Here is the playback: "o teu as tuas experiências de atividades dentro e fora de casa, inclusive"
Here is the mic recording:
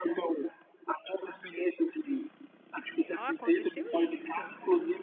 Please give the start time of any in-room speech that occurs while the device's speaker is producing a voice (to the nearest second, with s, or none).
3 s